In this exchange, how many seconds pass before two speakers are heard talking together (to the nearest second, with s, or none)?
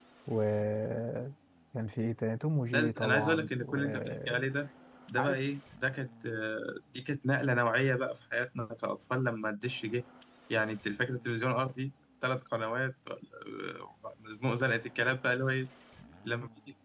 3 s